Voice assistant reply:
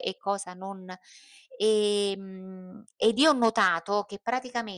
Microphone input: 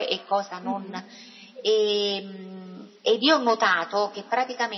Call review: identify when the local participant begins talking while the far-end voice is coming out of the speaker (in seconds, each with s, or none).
0.6 s